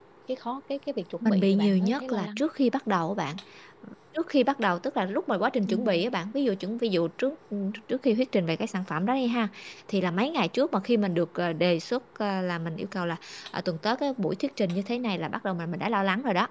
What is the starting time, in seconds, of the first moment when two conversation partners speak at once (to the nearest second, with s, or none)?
1 s